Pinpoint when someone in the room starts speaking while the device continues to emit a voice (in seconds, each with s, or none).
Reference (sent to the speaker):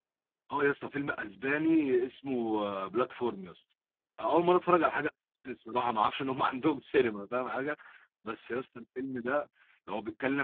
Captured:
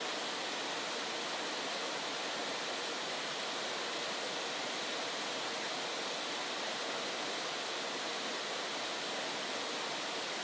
none